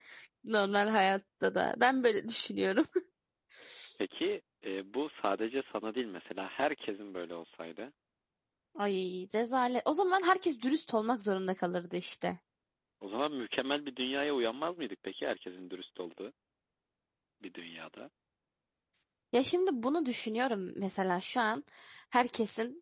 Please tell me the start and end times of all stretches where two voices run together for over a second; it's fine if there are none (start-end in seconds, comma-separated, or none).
none